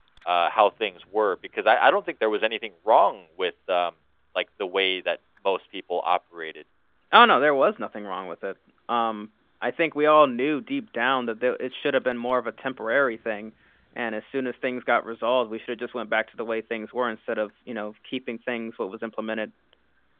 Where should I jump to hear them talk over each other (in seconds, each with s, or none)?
none